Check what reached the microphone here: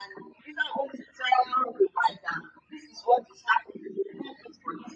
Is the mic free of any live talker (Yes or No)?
Yes